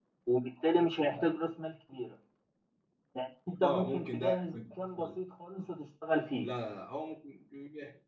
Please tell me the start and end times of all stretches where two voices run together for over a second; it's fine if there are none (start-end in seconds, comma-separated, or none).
3.6-5.2